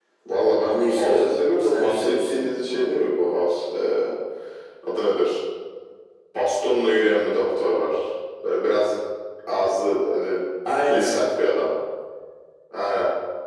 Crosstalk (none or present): present